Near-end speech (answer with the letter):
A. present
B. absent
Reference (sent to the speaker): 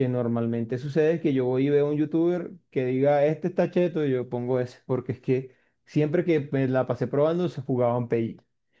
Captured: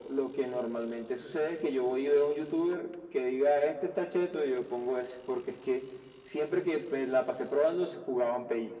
B